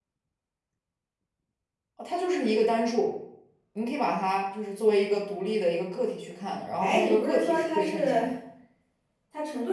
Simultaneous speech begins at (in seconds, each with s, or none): 6.8 s